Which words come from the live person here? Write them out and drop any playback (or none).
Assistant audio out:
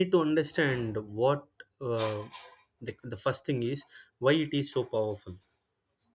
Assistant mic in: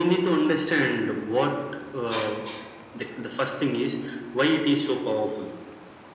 none